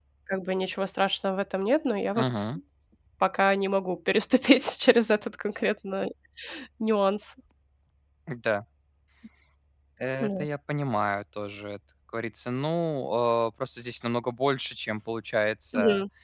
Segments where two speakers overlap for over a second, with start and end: none

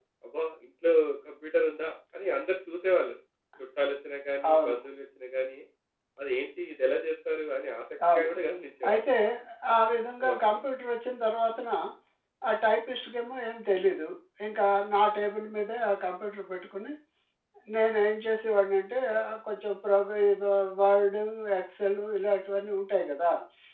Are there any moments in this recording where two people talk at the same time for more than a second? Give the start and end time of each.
none

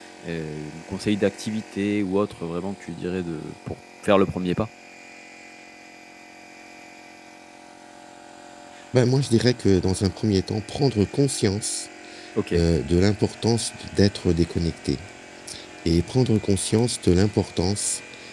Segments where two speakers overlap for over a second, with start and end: none

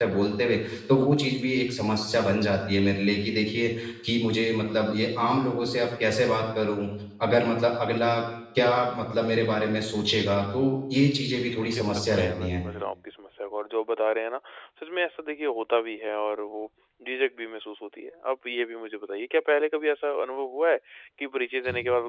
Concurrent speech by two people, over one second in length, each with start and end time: 11.3-12.6

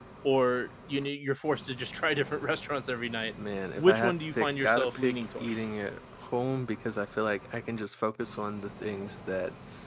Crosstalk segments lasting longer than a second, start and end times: 3.8-5.5

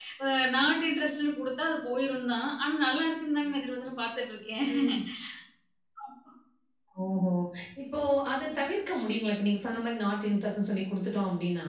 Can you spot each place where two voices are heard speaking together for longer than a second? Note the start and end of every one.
none

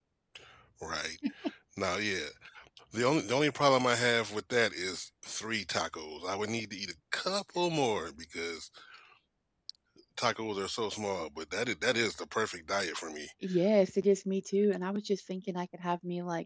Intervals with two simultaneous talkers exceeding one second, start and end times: none

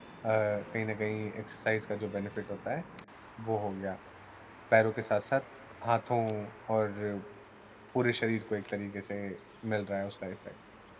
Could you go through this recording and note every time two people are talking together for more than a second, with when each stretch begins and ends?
none

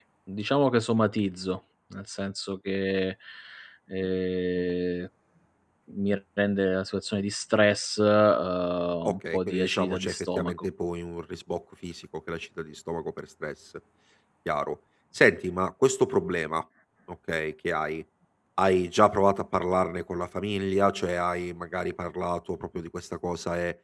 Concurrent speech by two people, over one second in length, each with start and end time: 9.1-10.7

